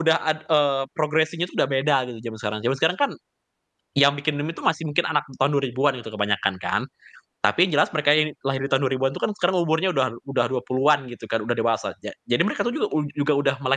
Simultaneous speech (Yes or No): No